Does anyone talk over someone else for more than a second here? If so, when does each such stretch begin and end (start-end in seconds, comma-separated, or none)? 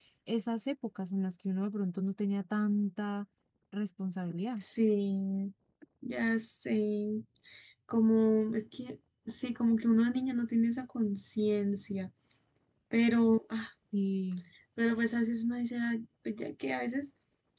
none